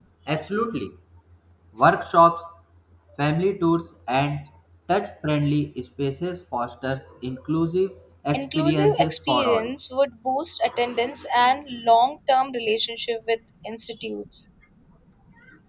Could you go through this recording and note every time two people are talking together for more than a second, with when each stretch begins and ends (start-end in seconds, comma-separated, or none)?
8.3-9.7